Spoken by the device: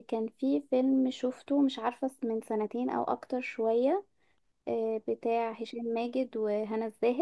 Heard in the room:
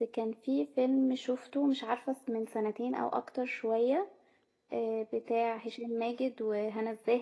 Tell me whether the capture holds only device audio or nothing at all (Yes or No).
Yes